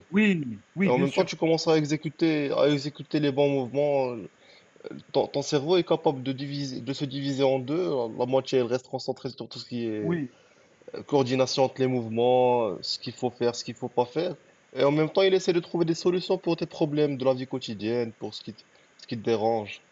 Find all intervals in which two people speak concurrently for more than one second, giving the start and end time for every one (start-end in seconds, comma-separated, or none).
none